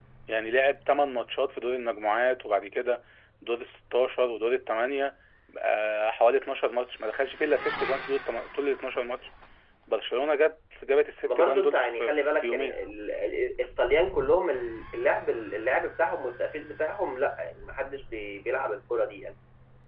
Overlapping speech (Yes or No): Yes